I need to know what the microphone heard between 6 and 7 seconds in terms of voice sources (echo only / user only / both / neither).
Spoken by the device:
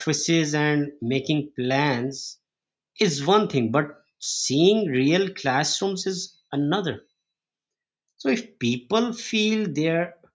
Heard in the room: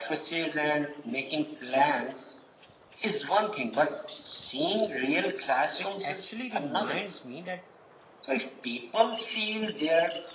both